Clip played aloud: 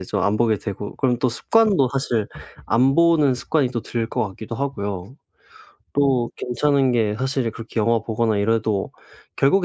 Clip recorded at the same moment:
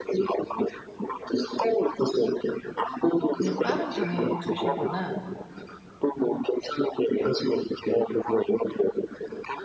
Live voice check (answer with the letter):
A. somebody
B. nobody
A